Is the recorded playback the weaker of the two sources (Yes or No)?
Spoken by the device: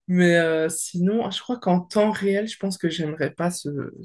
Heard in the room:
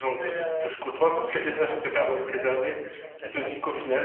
Yes